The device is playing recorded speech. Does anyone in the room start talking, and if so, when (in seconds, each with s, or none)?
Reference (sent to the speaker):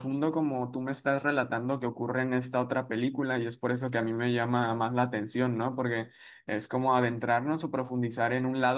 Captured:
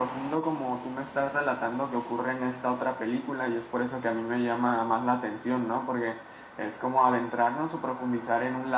none